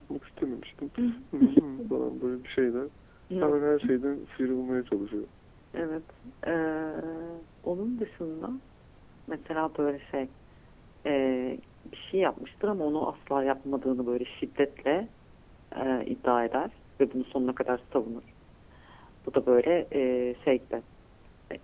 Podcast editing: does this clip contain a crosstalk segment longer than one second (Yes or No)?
No